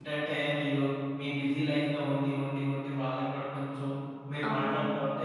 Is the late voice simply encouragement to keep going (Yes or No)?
Yes